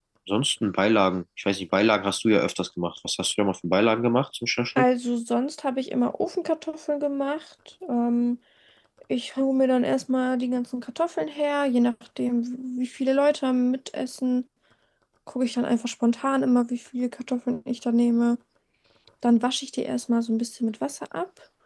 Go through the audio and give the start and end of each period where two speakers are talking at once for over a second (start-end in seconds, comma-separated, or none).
none